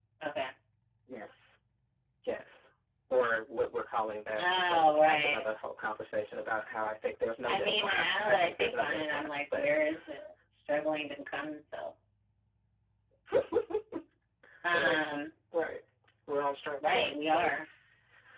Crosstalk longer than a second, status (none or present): present